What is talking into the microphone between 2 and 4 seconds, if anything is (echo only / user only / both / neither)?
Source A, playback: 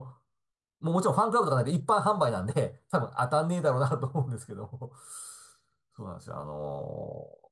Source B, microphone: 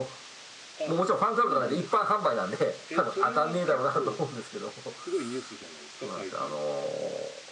both